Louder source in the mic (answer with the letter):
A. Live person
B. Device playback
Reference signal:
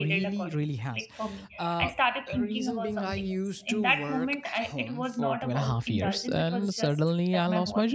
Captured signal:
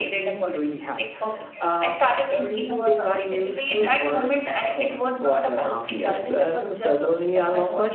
B